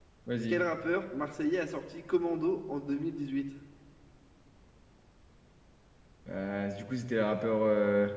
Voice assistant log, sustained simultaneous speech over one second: none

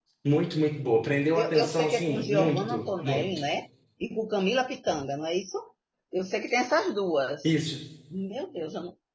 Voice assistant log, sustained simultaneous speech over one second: present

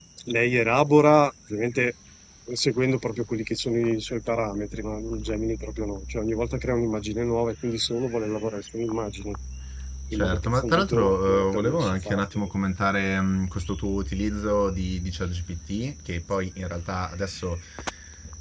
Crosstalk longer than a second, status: present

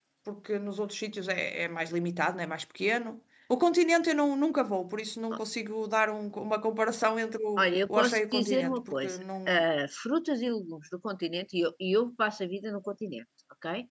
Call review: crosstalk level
present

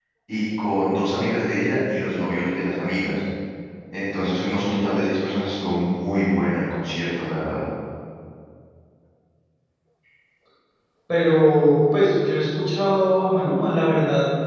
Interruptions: none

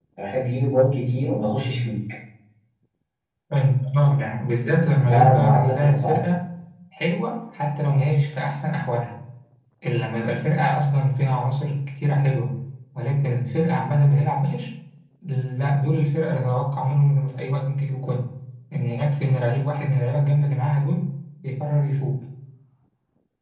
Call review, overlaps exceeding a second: present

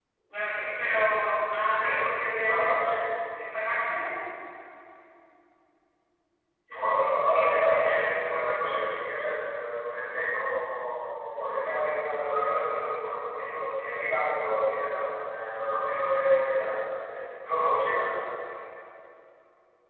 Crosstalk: present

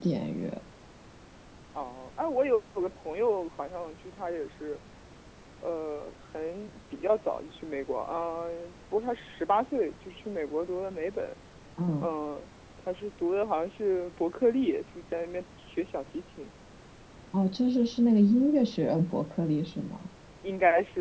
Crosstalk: none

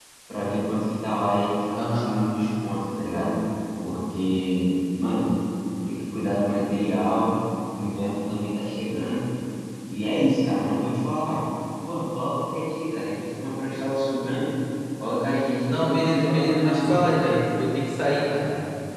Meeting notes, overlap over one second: present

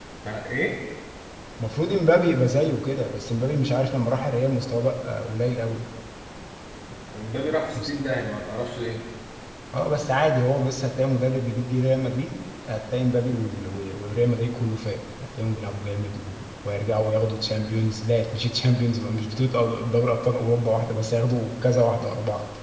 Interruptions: none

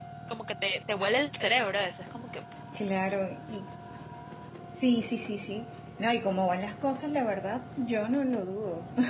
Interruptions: none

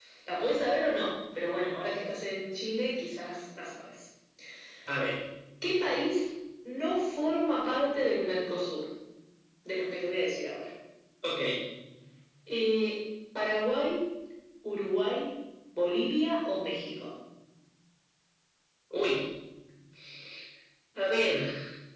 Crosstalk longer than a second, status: none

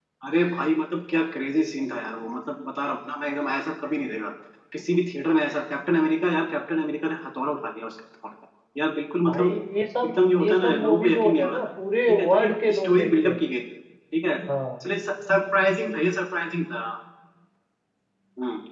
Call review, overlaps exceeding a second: present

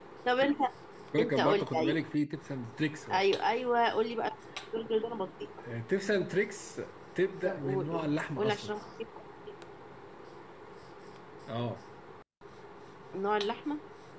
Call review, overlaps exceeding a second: present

